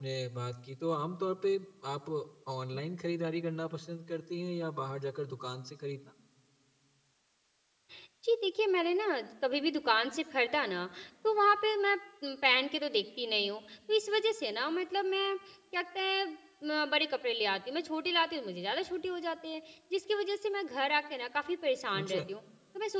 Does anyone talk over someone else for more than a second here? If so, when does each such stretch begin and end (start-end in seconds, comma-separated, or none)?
none